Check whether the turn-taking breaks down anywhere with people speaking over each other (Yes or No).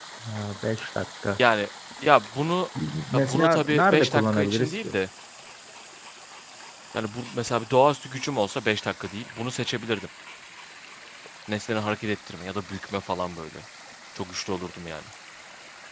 Yes